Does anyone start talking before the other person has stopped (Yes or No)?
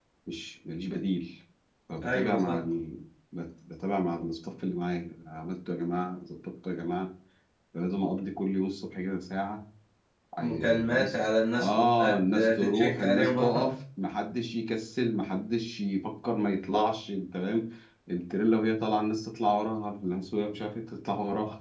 Yes